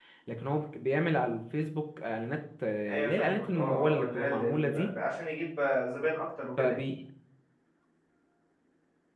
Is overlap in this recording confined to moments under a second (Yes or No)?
No